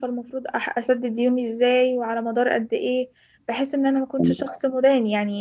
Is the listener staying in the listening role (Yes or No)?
Yes